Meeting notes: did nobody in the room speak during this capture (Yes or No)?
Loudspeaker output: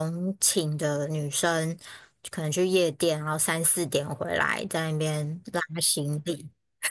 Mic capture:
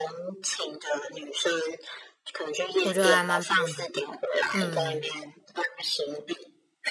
No